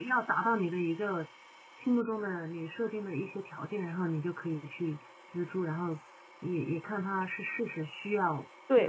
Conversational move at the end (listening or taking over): taking over